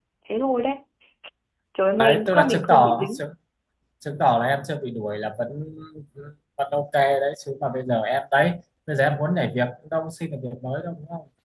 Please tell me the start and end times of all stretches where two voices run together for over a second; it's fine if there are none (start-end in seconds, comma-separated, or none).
2.0-3.2